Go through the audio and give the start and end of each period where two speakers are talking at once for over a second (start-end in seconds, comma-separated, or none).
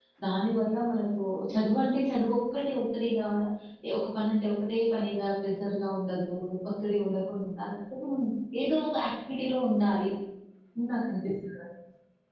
none